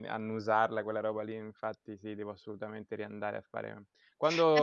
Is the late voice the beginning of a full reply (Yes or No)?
No